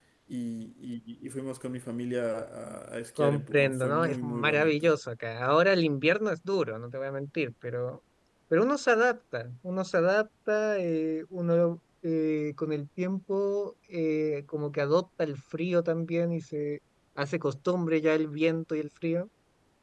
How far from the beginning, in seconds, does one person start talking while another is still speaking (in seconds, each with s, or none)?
3.2 s